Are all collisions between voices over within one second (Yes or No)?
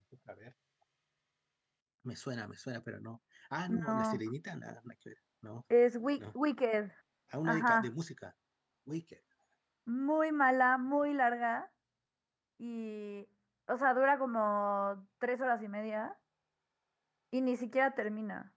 Yes